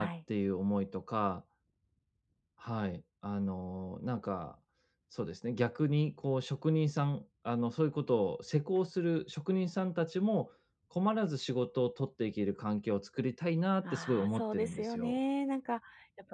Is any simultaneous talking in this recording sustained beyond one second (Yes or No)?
Yes